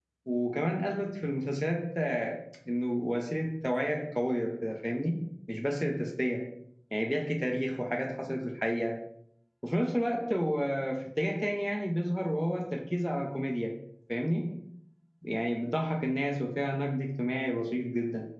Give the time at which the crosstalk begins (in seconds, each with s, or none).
none